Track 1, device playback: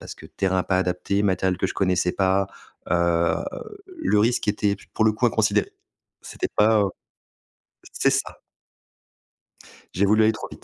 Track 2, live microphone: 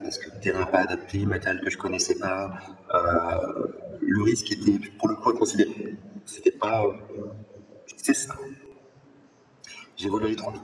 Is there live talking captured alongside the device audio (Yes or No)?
No